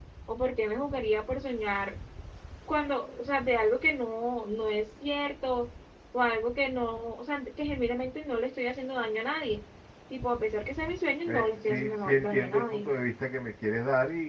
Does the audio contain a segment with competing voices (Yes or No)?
Yes